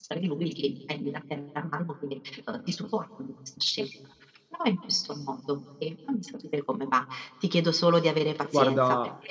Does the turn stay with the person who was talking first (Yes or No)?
Yes